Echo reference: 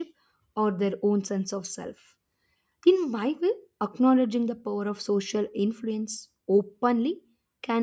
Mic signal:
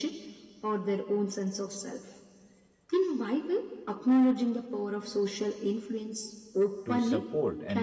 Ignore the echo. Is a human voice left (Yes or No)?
Yes